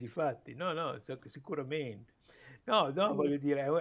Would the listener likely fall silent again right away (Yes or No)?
Yes